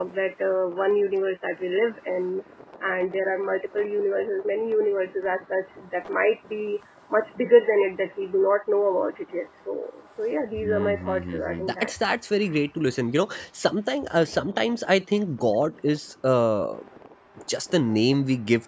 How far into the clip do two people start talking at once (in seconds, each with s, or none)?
10.6 s